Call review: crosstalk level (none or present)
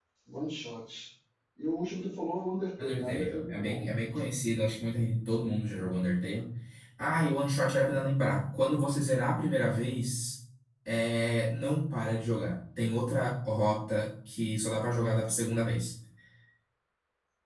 present